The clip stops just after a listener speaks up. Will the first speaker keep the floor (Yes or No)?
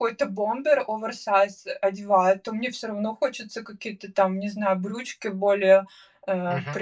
Yes